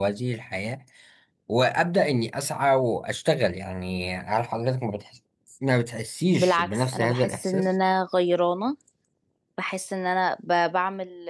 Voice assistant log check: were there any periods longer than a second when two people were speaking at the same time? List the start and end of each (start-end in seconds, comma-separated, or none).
6.4-7.7